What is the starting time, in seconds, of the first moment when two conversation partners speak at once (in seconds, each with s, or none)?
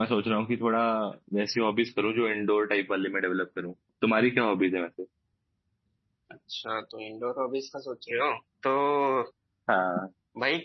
none